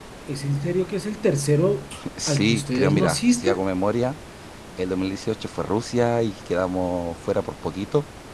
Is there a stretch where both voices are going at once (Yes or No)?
Yes